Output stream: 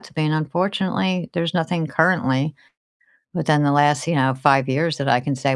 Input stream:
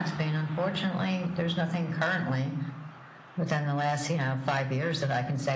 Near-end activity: none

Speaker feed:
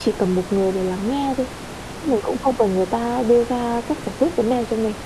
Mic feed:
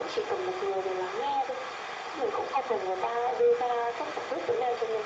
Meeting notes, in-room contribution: none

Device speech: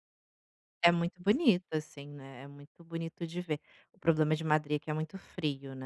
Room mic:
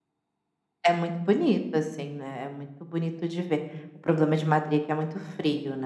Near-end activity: none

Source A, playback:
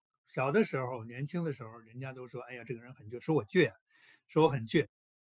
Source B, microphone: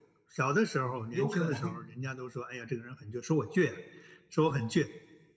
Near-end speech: present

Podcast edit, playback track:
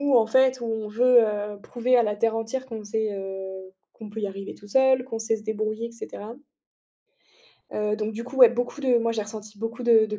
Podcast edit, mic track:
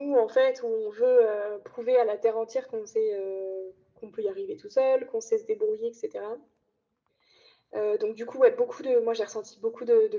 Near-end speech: none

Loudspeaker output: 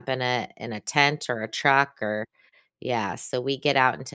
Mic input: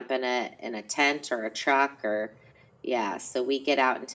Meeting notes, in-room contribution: none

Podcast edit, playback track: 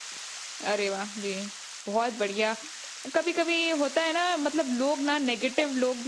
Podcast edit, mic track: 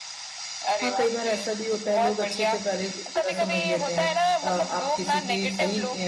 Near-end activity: present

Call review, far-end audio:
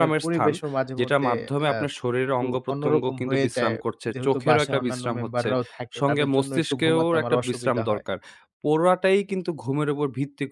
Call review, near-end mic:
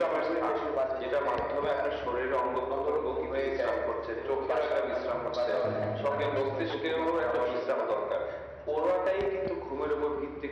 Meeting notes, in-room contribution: present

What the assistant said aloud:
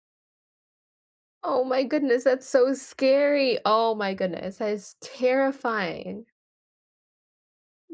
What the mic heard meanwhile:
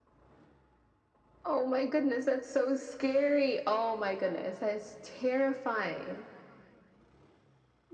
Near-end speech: none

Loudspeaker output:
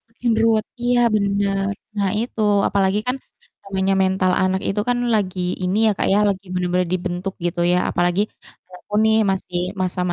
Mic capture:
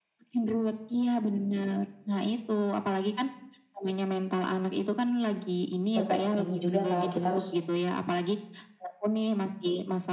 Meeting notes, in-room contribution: present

